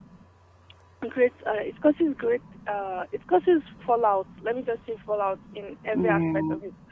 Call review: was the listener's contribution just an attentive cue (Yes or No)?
Yes